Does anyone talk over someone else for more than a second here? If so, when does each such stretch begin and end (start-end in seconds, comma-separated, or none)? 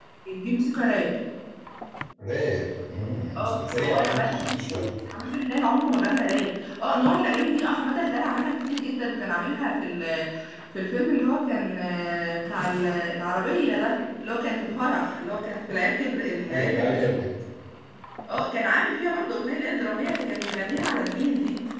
3.4-4.9